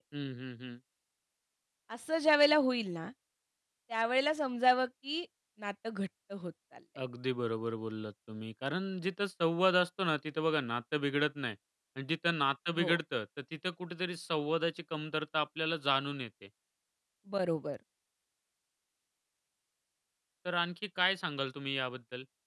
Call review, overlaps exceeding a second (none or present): none